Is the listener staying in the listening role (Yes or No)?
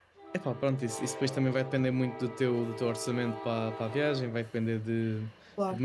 Yes